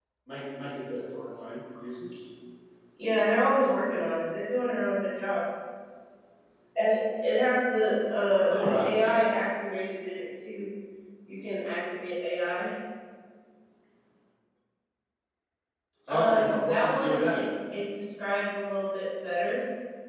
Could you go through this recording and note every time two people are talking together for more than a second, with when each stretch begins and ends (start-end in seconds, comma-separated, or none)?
16.1-17.4